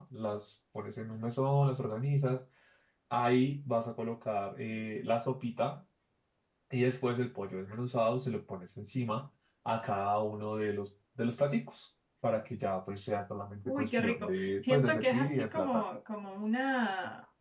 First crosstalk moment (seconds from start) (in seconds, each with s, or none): 13.7 s